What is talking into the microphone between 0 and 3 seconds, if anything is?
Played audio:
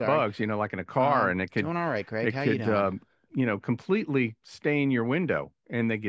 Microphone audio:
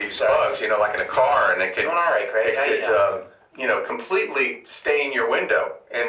echo only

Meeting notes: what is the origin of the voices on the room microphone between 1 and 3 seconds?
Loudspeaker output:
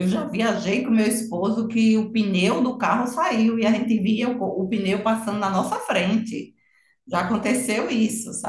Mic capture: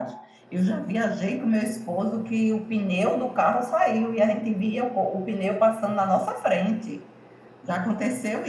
echo only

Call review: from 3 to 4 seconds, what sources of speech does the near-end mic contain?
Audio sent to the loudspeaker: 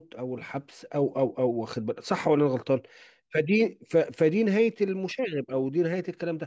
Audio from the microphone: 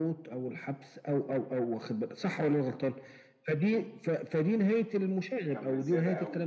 echo only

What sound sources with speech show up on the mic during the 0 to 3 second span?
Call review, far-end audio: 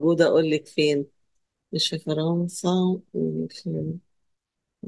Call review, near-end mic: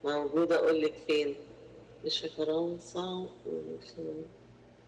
echo only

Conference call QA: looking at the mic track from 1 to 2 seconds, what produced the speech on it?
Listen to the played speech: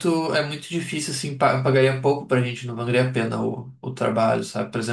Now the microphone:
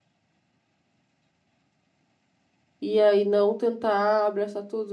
neither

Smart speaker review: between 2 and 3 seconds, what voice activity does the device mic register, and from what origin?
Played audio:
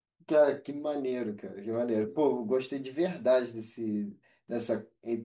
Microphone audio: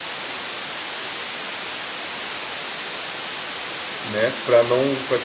neither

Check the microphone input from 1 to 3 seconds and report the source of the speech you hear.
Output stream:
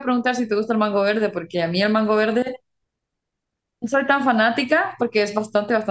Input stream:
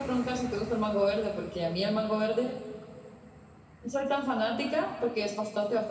echo only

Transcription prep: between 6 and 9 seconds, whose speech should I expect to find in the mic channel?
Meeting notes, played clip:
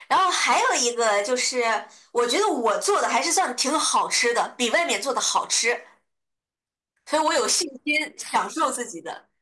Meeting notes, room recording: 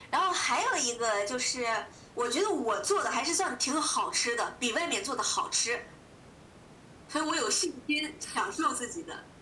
echo only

